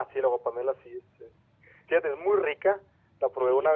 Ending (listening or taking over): listening